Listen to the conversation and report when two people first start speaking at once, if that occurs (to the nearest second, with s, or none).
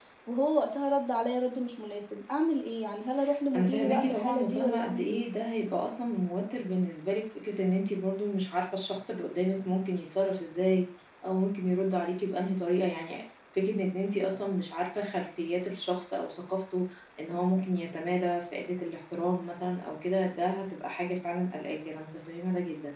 4 s